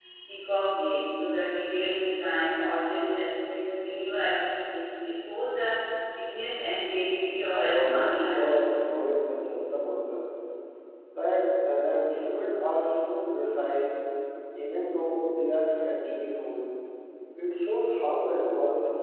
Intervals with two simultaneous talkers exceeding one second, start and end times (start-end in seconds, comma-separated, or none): 7.5-9.0